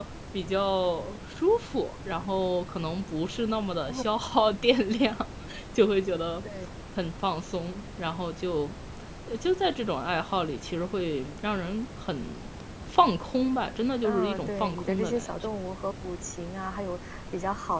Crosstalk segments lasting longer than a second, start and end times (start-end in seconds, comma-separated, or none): 14.0-15.4